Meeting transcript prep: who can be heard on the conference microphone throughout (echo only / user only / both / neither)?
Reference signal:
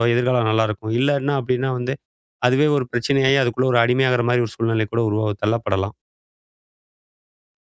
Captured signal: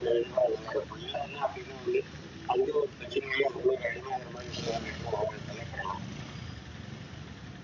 echo only